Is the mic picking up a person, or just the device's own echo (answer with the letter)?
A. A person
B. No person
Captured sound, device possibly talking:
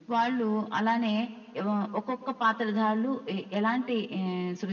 B